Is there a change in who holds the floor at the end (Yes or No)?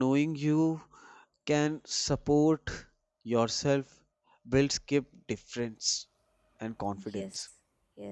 Yes